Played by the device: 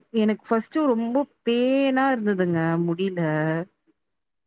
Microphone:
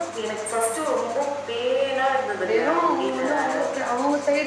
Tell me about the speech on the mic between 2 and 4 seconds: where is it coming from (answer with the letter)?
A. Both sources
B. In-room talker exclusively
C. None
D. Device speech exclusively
A